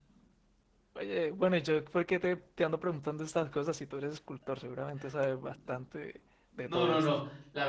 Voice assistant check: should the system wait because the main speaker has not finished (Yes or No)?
No